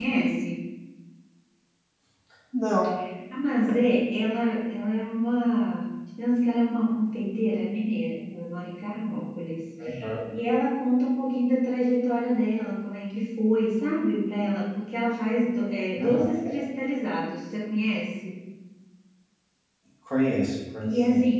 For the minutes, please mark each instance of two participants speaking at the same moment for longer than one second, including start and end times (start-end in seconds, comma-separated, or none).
none